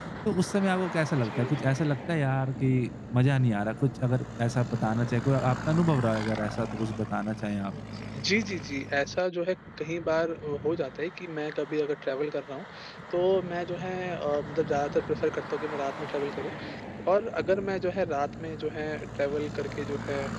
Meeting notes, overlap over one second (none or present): none